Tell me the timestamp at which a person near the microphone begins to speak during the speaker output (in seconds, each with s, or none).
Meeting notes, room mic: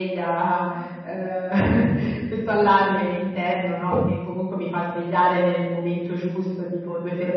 3.9 s